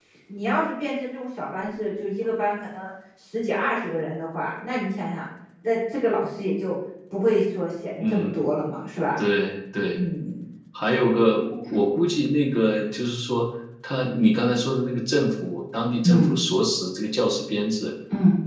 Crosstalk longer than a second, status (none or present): none